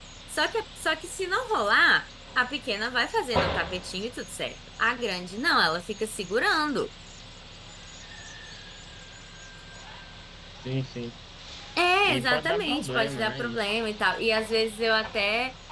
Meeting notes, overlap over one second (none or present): present